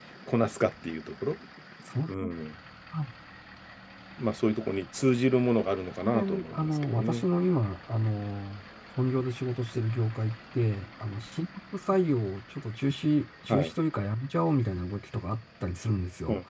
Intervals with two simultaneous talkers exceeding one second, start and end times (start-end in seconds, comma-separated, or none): 6.0-7.2